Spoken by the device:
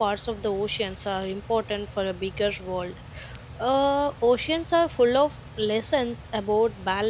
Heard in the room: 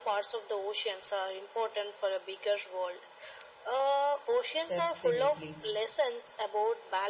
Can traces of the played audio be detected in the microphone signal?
Yes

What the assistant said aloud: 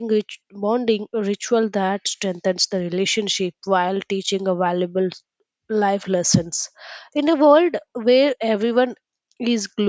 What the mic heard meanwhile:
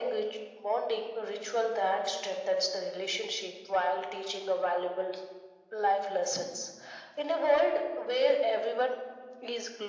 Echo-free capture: No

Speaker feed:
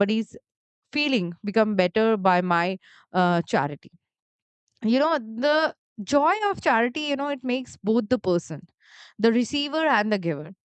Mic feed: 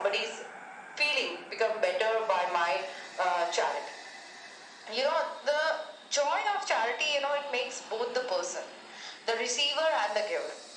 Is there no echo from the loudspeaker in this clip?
No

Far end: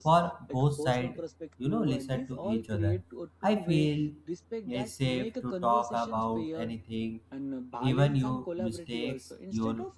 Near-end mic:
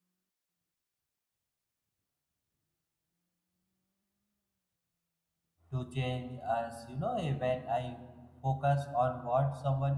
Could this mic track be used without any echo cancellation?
Yes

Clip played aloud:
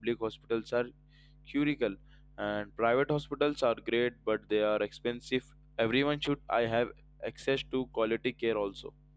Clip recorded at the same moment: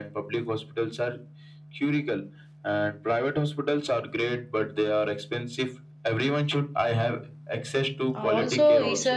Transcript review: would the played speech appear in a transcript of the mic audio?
Yes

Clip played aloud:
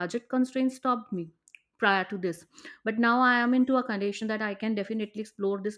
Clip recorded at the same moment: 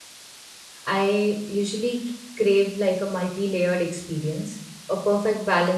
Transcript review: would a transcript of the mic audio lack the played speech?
Yes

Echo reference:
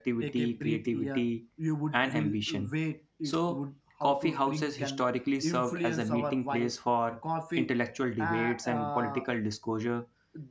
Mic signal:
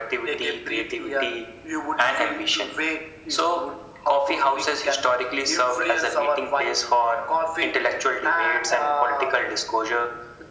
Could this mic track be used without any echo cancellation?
No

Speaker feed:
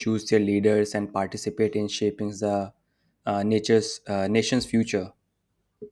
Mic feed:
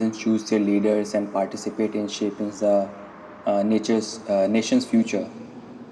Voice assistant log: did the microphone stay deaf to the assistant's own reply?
No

